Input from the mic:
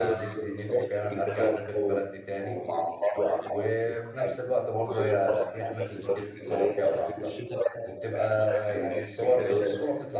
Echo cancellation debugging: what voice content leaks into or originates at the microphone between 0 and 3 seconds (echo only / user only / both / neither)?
both